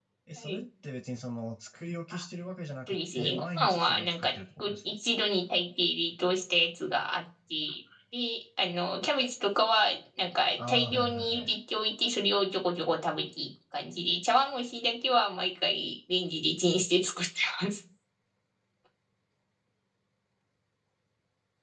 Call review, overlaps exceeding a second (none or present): present